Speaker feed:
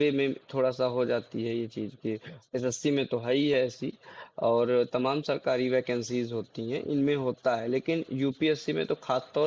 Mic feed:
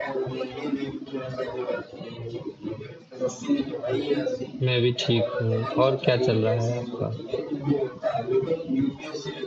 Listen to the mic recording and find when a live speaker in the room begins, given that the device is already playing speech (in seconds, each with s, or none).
4.6 s